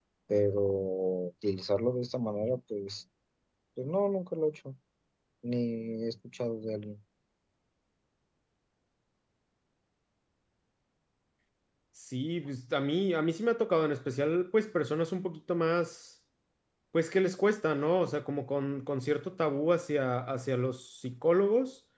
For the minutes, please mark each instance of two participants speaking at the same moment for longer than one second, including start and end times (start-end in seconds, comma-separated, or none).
none